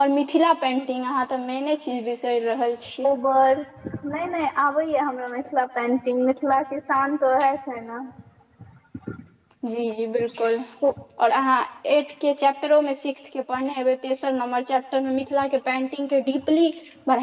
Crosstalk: none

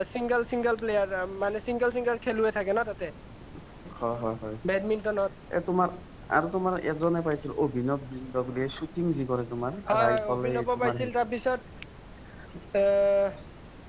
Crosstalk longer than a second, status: present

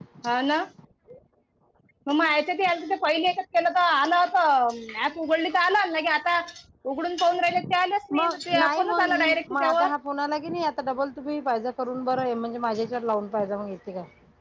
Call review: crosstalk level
present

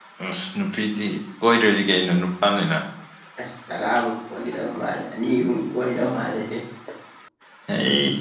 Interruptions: none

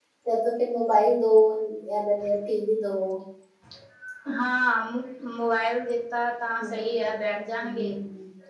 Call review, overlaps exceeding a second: none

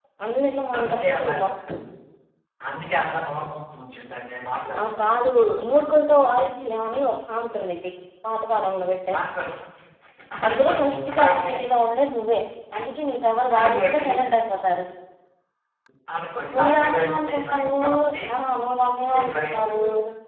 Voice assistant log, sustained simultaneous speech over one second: present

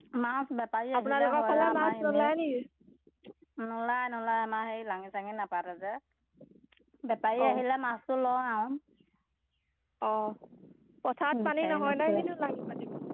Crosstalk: present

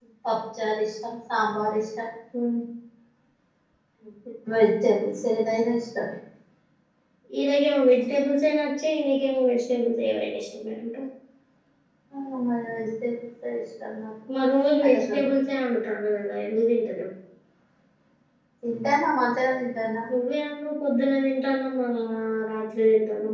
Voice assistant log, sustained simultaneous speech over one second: none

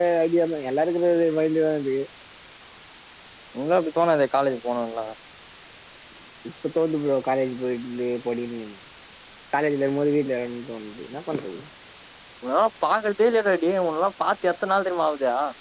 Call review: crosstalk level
none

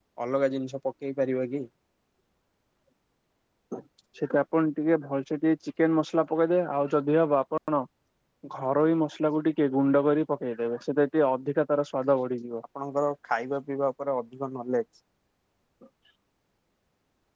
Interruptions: none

